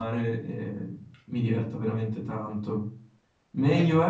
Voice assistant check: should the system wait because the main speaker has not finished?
Yes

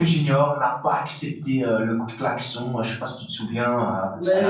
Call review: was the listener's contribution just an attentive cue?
No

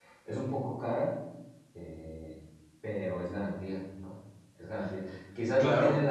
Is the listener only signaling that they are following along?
Yes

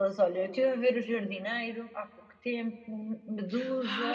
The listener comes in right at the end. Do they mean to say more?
Yes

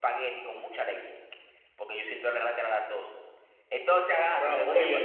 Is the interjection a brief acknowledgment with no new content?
No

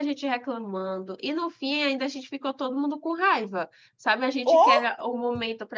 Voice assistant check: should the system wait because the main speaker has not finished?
Yes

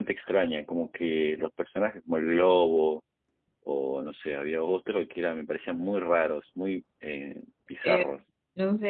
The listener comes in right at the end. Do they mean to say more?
Yes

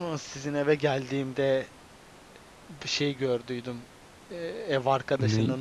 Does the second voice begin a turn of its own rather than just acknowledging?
No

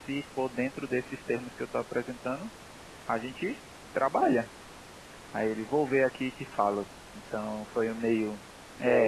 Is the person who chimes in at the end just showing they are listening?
No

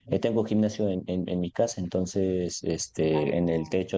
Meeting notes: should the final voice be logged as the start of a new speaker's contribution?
No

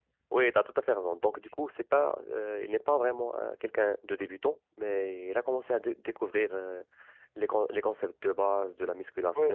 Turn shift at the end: Yes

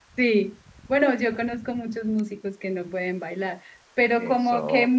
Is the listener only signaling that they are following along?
Yes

